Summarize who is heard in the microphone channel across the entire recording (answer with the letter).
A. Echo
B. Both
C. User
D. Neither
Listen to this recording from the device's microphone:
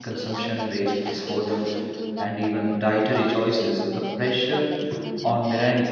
B